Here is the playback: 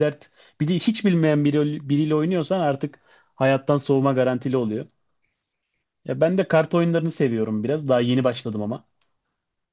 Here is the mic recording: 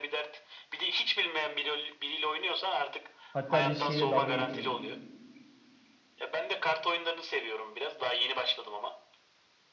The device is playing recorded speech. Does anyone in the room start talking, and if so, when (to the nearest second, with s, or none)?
3 s